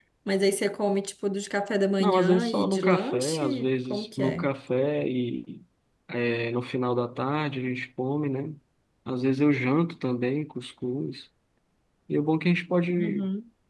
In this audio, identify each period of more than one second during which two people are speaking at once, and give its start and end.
2.0-4.5

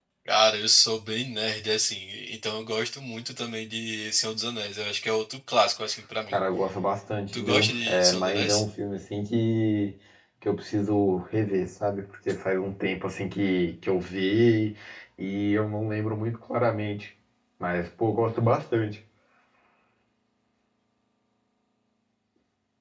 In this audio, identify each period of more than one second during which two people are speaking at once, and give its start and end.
7.3-8.6

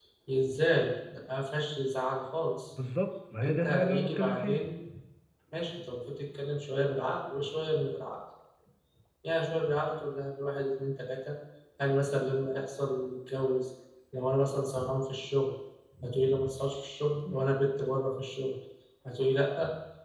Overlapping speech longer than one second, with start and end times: 3.4-4.6

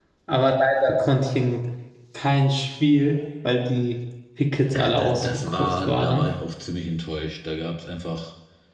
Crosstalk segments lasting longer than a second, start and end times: 4.7-6.2

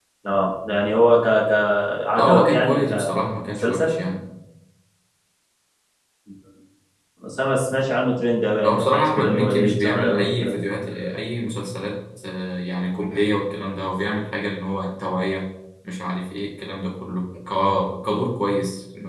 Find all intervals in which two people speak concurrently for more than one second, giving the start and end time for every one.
2.2-3.9, 8.6-10.6

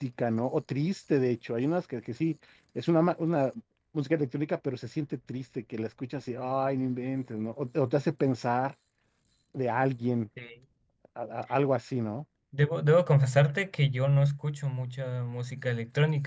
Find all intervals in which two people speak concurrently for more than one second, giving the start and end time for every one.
none

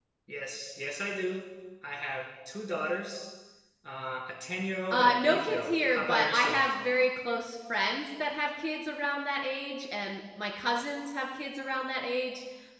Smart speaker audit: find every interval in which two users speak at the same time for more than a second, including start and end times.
4.9-6.6

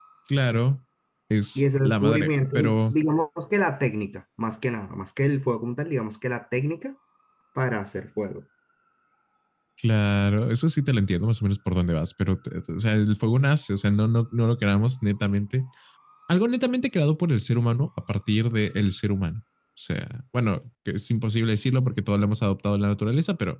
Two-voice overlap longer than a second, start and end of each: 1.6-2.9

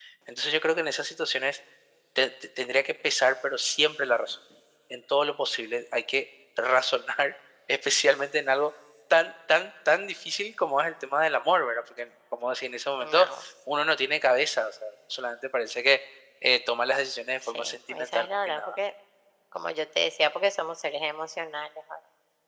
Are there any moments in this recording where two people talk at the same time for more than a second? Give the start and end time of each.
17.5-18.8

